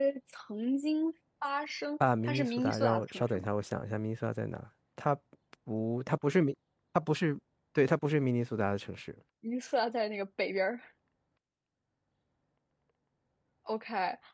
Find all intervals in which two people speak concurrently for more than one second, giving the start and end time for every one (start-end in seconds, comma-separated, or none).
2.2-3.5